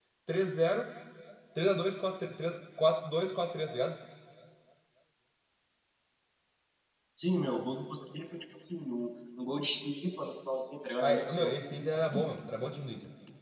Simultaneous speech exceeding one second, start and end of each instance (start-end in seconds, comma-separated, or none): none